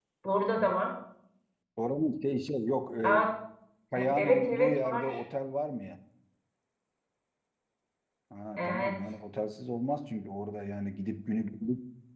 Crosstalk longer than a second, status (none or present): present